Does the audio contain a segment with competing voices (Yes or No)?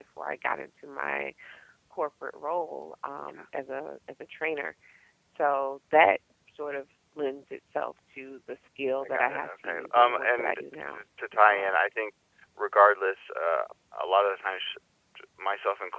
Yes